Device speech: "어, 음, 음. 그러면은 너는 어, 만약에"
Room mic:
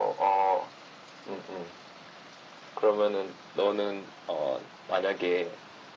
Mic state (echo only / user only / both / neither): echo only